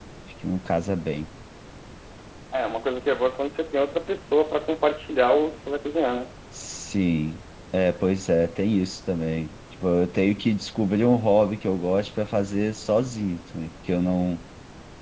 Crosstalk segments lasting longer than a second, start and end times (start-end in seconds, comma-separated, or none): none